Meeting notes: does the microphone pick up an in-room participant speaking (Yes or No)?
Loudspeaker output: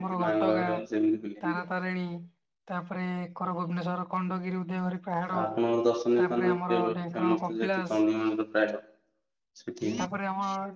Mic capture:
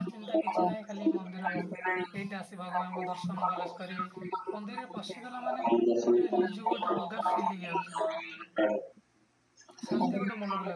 Yes